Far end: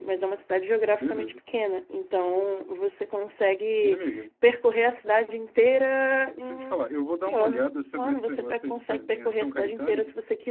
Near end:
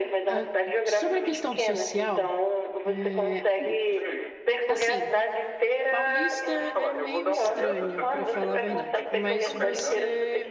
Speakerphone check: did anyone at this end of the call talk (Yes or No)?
Yes